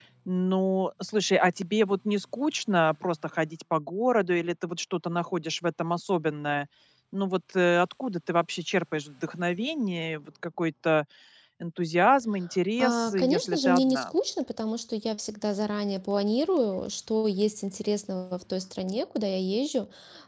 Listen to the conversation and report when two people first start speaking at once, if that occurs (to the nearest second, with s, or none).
13 s